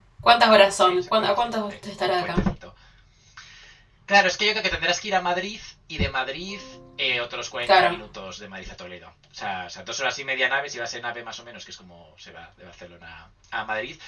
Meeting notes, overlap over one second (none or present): present